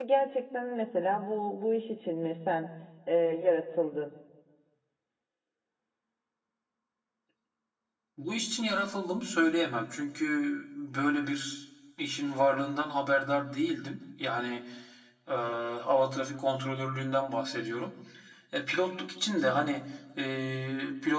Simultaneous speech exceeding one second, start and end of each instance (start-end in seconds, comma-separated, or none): none